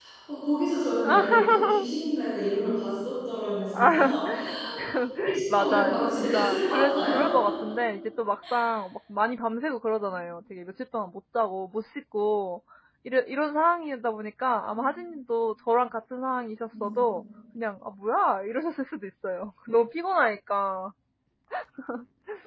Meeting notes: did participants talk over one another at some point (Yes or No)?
Yes